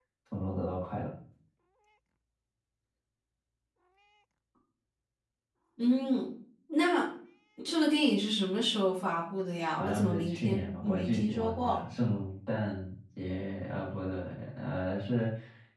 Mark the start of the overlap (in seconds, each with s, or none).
9.8 s